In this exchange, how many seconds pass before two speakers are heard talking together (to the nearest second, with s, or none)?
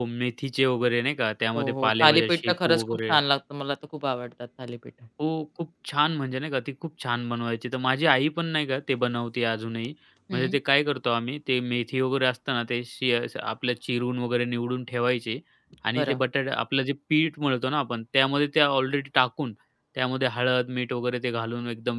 2 s